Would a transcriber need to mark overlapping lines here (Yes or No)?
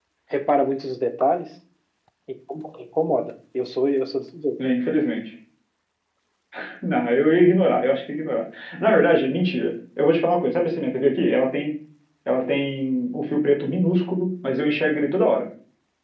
No